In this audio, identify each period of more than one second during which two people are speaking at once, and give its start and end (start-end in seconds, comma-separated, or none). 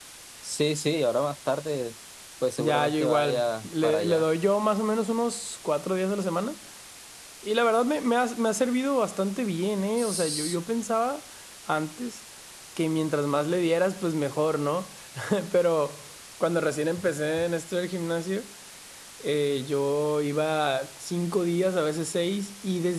2.6-4.2